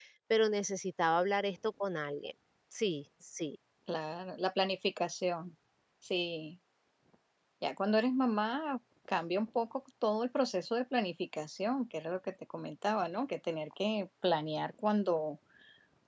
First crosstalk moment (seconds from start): none

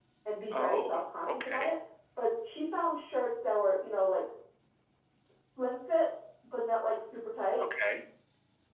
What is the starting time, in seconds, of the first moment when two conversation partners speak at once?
0.5 s

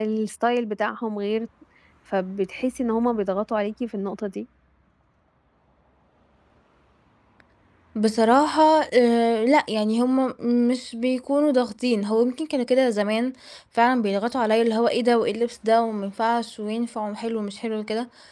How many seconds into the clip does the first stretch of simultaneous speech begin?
none

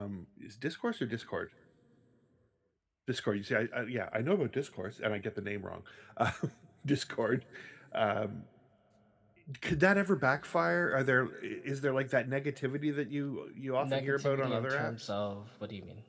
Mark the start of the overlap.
13.8 s

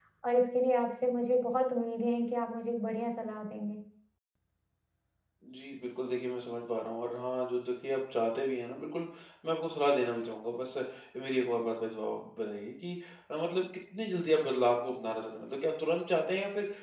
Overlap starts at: none

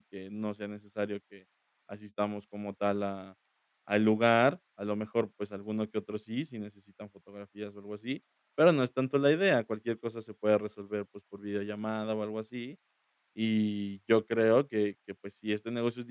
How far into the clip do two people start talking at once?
none

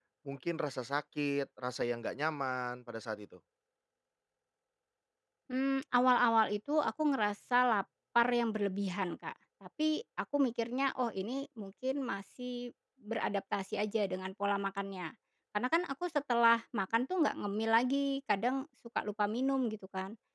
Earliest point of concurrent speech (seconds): none

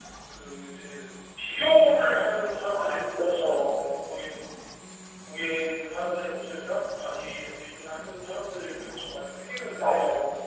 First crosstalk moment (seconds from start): 2.7 s

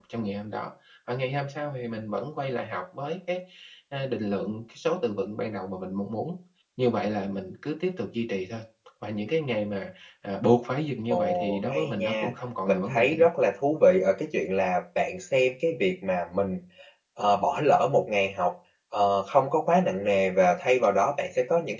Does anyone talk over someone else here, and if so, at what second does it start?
11.1 s

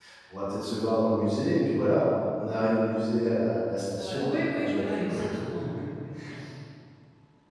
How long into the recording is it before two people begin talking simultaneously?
4.0 s

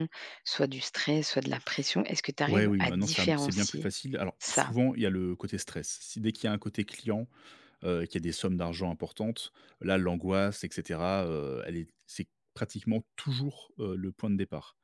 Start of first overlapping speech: 2.5 s

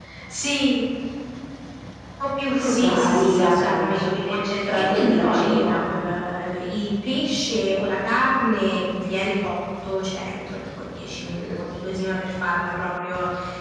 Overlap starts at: 2.6 s

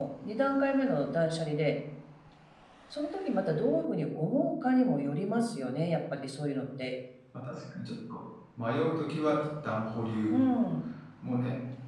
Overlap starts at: none

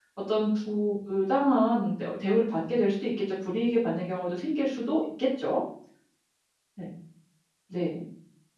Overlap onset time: none

